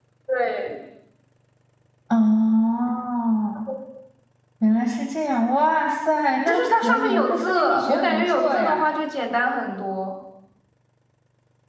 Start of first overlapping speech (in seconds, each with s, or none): 6.5 s